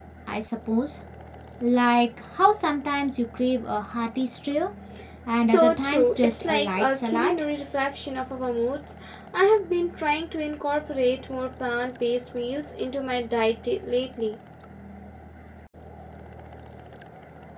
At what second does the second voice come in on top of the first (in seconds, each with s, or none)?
5.4 s